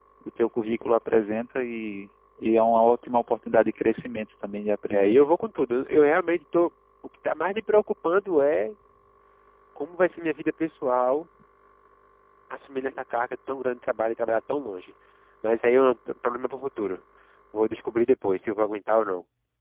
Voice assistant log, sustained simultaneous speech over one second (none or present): none